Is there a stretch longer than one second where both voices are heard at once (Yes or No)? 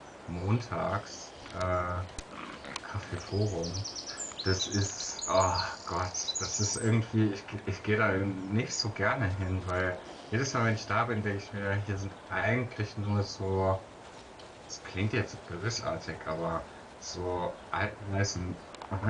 No